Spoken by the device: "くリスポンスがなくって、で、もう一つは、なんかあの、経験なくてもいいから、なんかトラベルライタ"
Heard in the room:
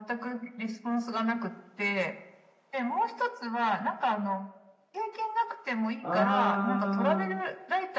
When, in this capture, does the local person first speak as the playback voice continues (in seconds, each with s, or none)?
6.0 s